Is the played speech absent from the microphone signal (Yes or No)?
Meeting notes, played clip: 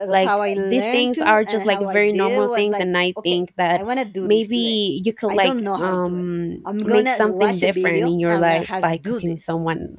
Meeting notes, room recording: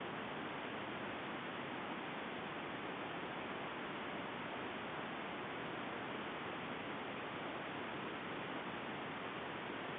Yes